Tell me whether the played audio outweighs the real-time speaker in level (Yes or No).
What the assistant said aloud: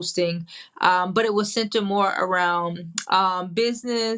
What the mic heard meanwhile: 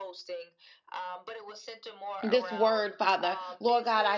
No